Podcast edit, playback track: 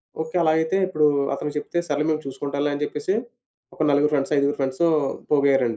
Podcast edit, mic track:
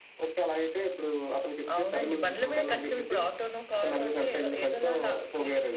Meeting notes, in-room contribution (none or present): present